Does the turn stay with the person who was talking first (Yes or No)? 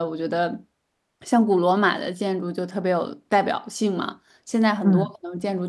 Yes